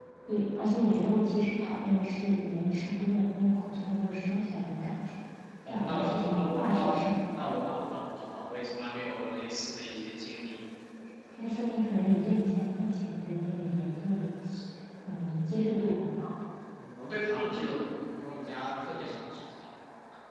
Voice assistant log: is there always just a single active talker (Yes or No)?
No